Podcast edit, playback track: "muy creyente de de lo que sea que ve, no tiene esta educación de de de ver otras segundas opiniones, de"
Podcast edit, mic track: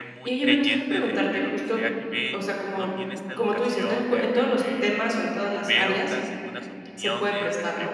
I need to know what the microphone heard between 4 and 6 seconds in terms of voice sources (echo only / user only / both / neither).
both